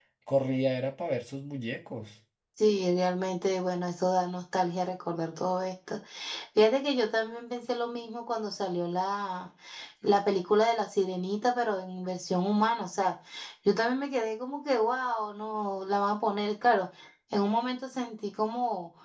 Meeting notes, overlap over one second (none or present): none